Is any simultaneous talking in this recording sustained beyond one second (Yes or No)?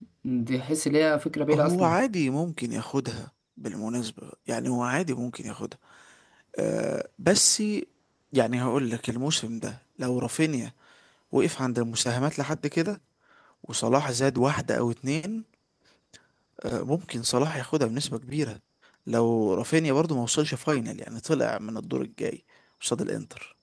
No